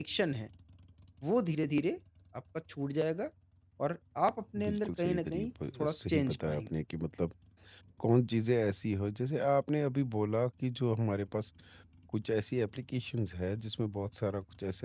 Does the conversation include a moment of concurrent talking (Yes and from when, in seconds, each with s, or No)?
Yes, from 4.6 s